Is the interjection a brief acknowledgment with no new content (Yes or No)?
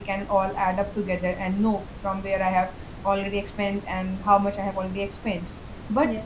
Yes